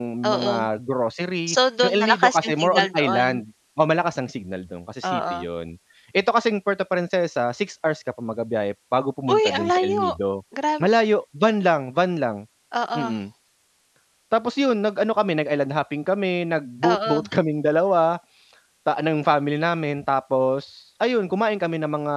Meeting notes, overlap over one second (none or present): present